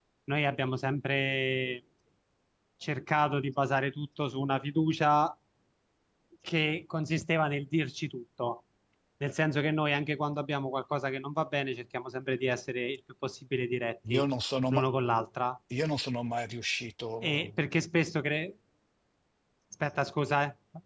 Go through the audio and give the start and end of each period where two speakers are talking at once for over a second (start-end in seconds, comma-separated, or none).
none